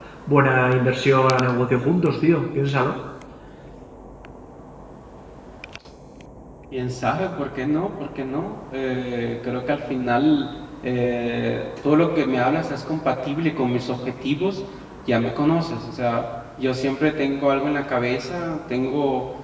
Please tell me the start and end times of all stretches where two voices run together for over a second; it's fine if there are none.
none

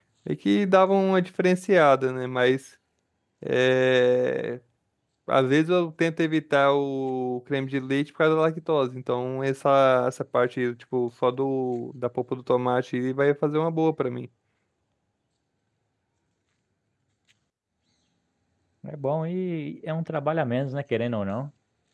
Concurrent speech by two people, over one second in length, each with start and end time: none

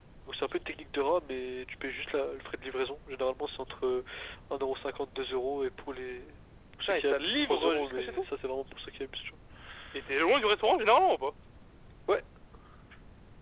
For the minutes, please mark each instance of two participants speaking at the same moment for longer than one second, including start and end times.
6.9-8.2

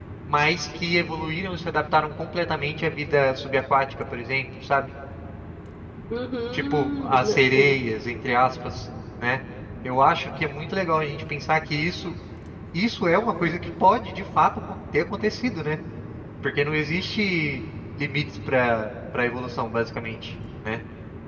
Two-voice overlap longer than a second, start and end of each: 6.5-7.8

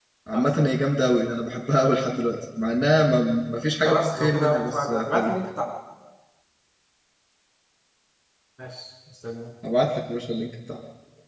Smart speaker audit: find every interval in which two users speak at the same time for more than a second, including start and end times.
3.8-5.3

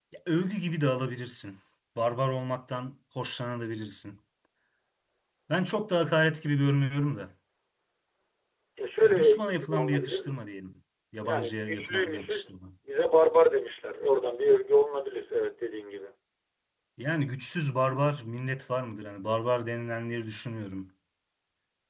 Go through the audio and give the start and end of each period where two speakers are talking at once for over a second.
9.0-10.4, 11.2-12.5

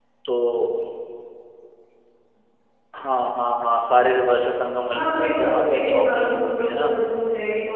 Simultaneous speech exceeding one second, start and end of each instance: 4.9-6.9

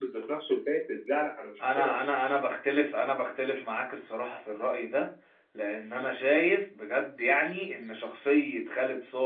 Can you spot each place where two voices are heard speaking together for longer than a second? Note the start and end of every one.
none

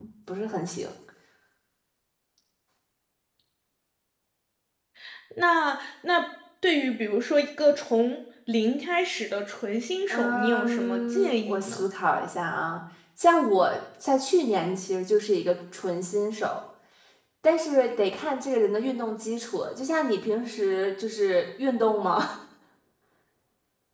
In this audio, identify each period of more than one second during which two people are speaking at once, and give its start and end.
10.1-11.8

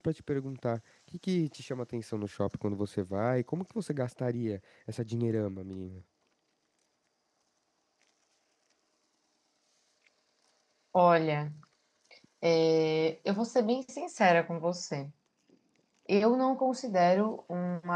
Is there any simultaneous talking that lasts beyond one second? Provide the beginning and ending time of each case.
none

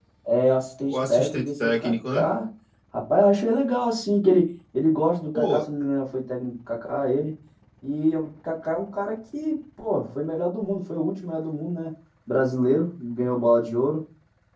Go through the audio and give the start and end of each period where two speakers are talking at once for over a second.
0.8-2.2

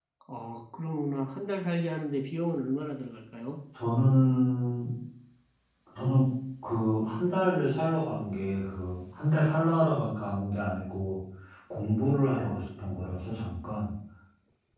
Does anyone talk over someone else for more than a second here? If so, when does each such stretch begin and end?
none

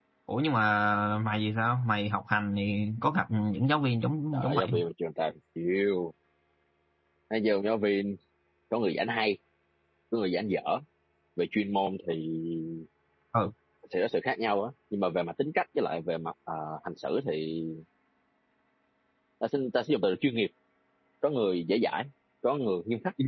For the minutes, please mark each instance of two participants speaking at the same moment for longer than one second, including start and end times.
none

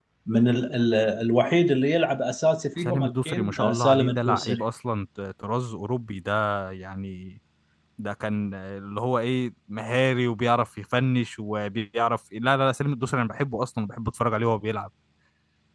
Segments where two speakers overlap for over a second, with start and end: 2.8-4.6

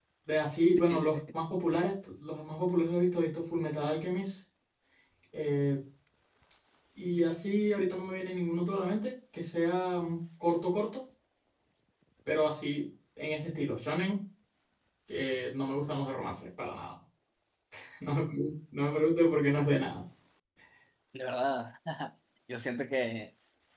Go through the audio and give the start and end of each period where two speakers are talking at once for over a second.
none

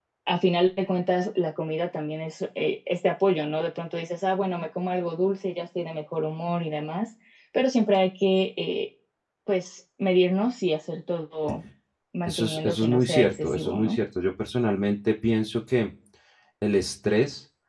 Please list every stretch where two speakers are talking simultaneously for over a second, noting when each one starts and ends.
12.2-14.0

